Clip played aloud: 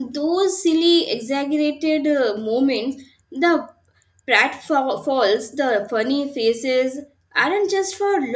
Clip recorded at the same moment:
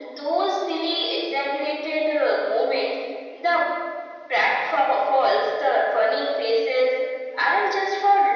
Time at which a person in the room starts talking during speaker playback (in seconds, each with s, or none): none